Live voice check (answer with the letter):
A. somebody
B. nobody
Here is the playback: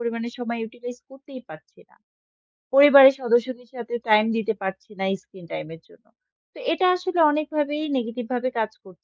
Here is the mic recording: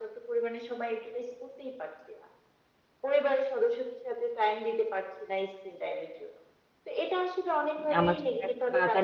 A